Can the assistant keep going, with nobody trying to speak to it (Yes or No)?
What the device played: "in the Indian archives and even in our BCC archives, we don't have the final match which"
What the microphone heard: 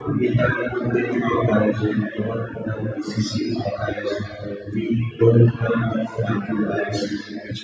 Yes